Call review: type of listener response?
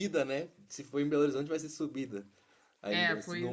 taking over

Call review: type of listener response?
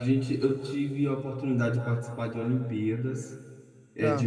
listening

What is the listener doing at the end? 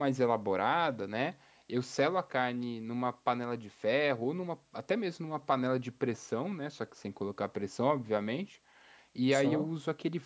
listening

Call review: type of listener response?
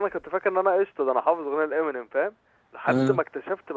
listening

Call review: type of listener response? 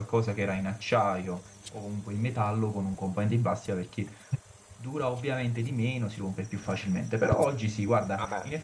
listening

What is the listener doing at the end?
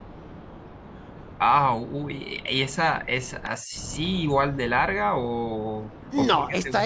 taking over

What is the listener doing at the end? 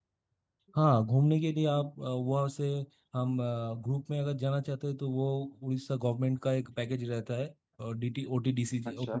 listening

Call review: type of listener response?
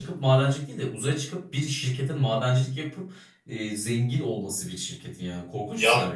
taking over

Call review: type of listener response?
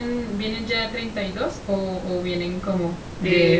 taking over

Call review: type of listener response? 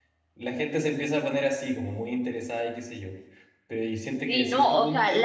taking over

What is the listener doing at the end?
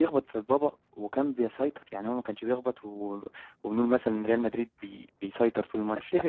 taking over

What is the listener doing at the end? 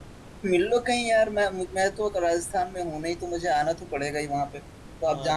taking over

